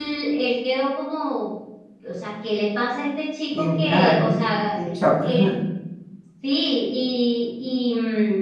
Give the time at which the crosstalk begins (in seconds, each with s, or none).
3.5 s